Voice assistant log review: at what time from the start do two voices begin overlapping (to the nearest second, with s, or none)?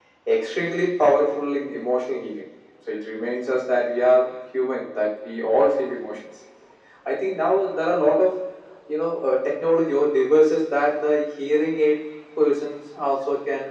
none